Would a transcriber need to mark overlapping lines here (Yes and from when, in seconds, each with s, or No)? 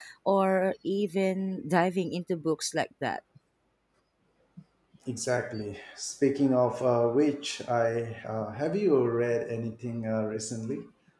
No